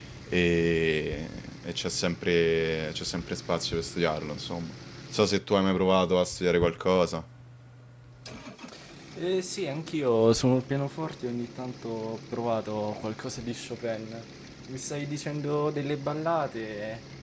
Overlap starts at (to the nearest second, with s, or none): none